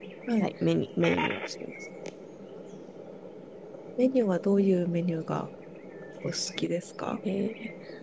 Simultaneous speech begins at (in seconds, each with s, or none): none